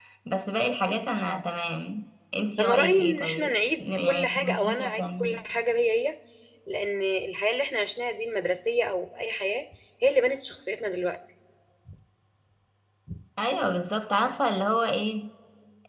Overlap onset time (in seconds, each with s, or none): 2.6 s